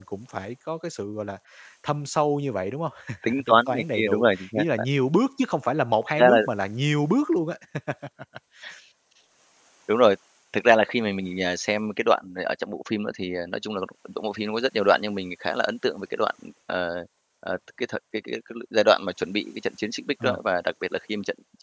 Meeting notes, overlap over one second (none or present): present